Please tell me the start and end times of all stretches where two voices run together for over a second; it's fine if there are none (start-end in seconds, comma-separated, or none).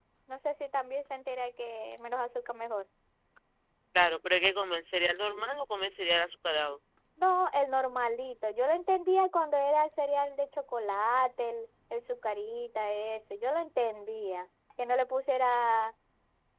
none